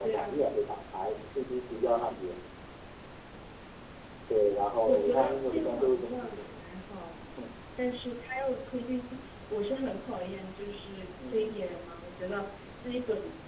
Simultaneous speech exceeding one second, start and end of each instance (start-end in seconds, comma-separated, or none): 4.9-6.6